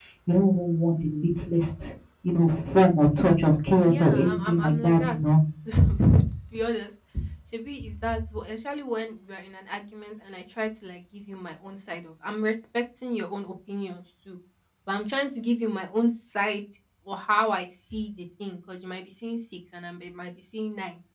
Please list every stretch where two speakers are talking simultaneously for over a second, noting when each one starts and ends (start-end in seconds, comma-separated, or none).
3.9-5.2